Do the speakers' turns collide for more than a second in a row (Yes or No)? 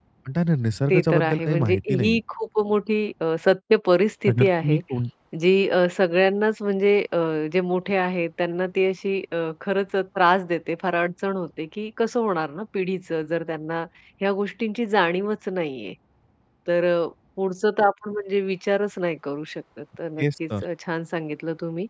Yes